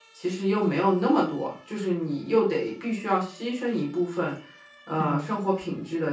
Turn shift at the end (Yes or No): No